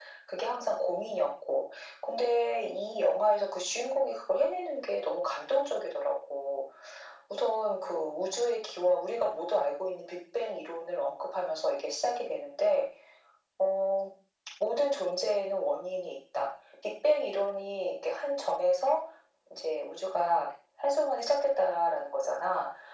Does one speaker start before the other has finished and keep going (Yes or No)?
No